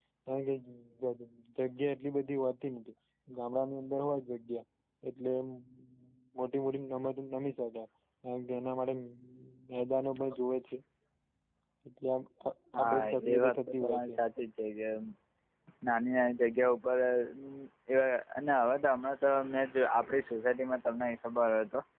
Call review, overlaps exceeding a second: present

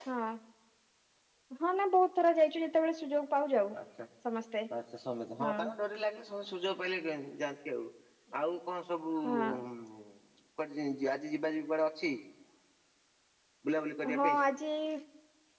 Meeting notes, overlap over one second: none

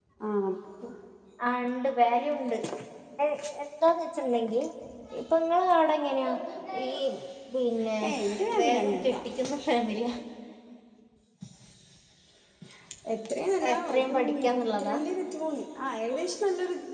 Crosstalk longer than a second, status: present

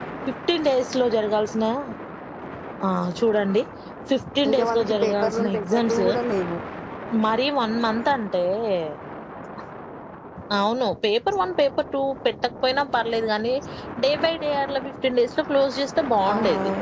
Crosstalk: present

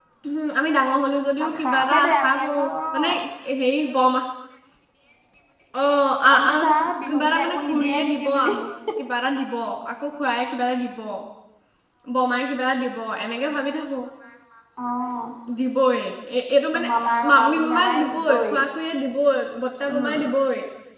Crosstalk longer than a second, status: present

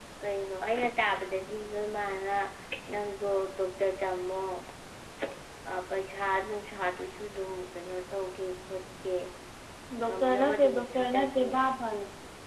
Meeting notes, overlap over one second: present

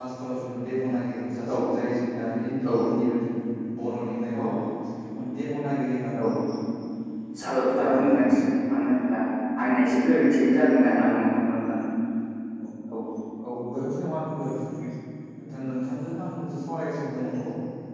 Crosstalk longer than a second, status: present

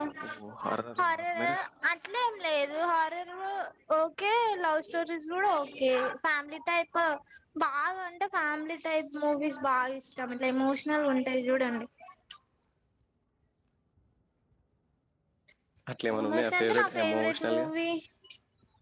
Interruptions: present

